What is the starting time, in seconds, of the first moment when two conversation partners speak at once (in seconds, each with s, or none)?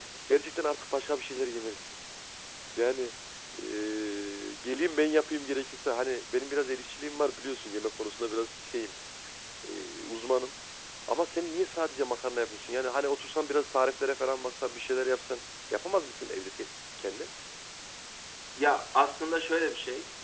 none